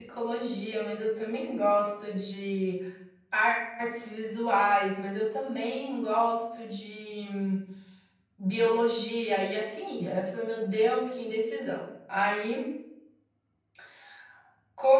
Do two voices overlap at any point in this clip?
No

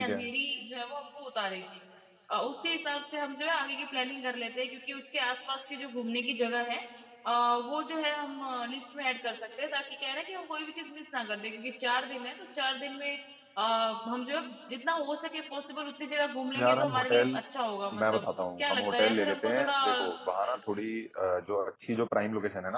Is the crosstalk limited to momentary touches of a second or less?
No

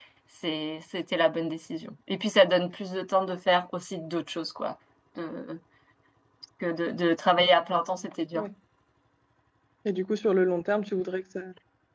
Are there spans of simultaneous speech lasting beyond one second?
No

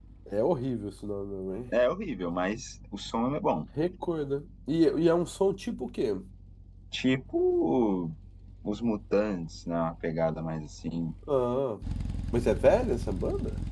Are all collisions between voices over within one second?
Yes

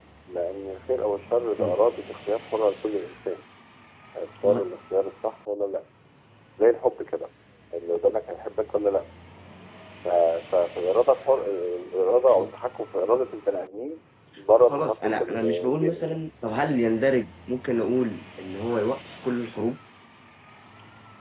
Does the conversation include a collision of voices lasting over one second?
Yes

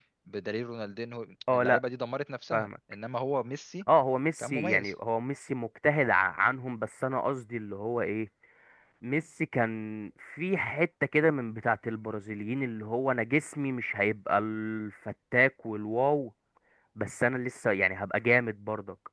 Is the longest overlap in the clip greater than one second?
No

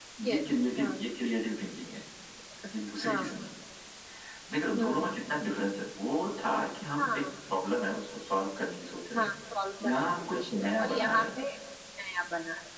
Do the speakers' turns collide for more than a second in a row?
Yes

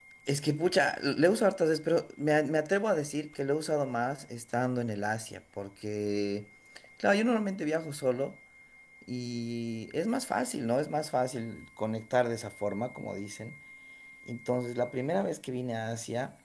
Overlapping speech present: No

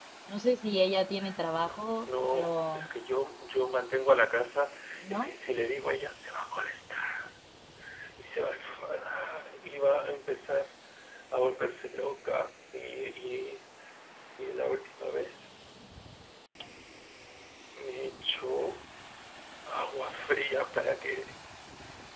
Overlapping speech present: Yes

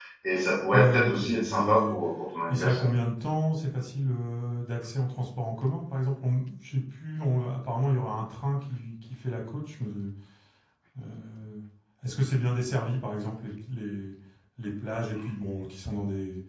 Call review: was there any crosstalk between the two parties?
Yes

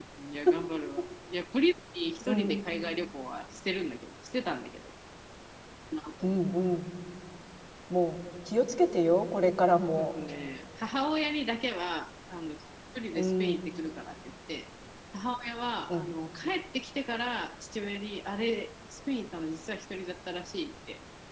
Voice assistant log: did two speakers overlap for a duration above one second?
No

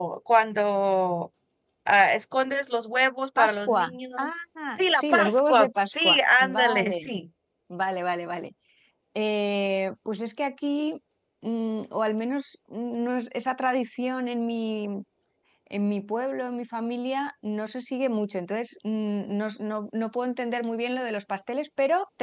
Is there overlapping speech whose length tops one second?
Yes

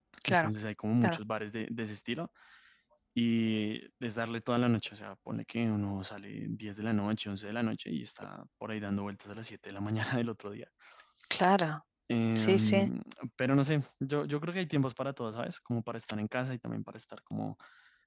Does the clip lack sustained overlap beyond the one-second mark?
Yes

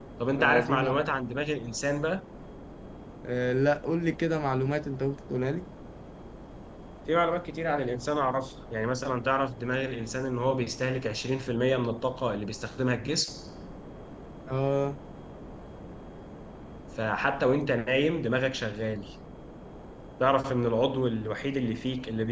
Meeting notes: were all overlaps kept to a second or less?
Yes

